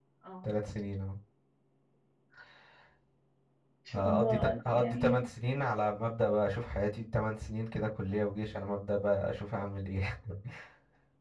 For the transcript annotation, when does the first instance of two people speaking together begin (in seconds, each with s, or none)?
3.9 s